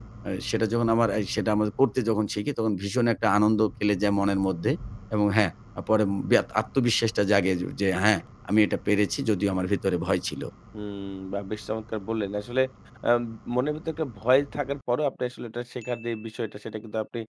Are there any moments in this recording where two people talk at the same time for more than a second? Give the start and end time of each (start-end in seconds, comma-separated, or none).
none